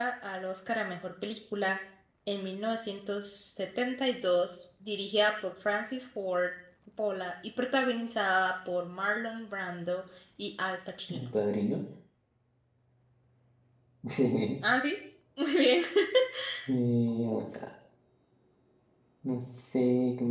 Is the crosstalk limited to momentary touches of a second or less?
Yes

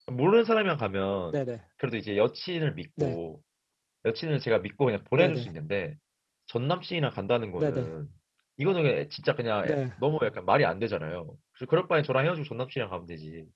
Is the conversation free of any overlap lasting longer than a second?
Yes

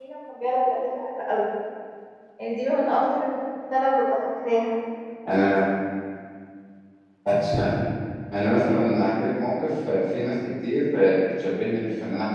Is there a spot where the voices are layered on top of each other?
No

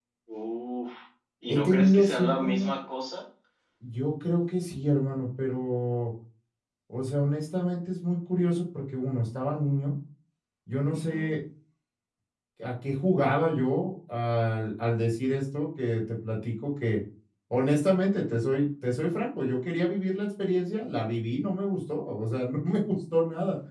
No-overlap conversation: No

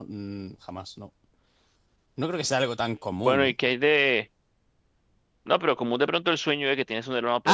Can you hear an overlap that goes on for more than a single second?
No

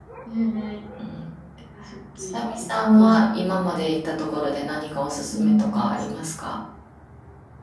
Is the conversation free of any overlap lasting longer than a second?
No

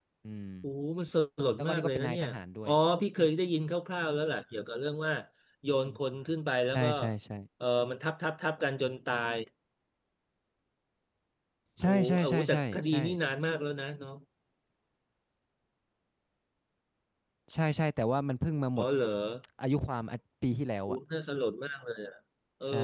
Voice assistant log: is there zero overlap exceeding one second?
No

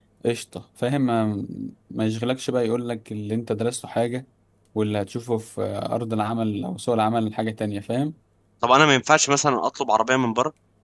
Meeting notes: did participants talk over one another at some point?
No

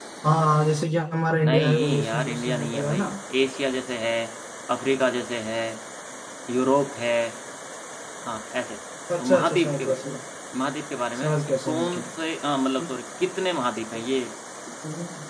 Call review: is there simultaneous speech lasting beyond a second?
Yes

